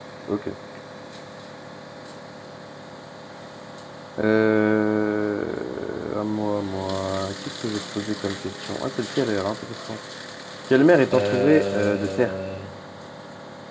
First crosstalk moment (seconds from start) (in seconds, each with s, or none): 11.1 s